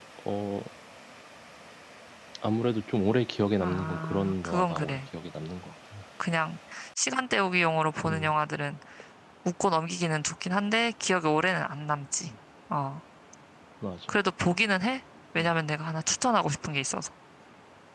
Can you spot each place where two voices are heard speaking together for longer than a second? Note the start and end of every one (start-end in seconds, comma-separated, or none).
3.6-5.0